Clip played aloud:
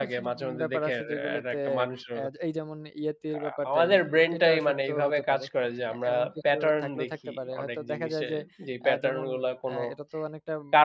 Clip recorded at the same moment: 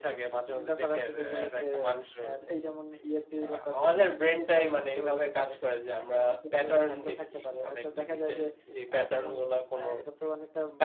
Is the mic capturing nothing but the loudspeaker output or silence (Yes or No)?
Yes